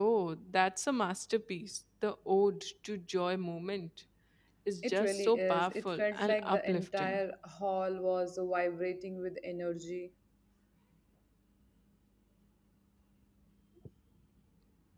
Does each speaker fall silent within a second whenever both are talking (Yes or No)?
No